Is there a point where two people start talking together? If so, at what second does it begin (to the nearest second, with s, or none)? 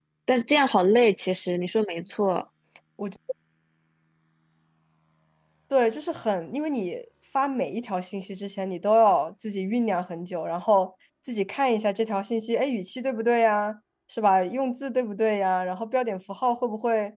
none